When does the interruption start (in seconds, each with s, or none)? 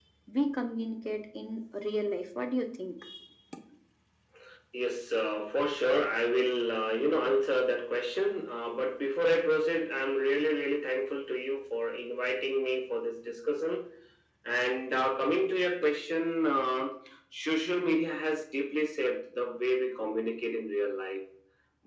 none